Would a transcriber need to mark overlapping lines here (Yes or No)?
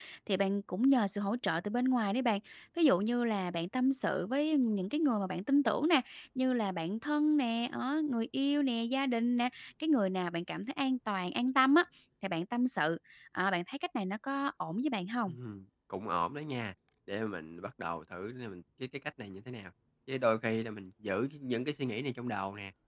No